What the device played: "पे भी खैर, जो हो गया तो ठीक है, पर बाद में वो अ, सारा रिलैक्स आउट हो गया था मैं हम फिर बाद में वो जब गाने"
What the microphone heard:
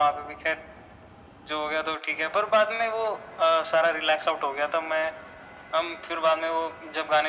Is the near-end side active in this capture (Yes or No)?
No